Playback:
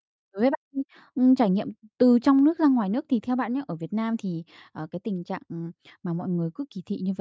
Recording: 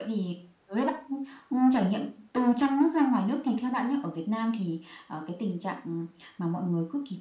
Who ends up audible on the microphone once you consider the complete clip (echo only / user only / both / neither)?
echo only